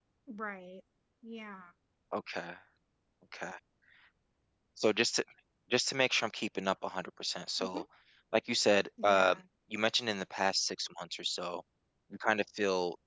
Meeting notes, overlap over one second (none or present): none